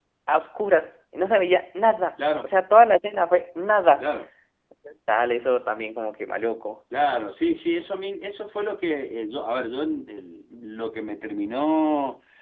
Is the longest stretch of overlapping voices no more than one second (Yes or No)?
Yes